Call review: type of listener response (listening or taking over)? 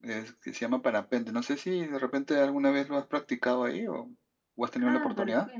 taking over